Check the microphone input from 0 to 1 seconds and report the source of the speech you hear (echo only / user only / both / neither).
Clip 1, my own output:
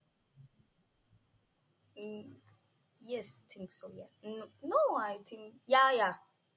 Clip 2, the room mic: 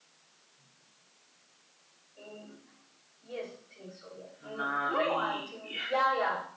neither